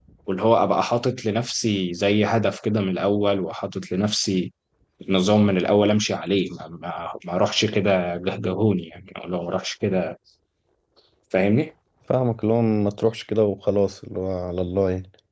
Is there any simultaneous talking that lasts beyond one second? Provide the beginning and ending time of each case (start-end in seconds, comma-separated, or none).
none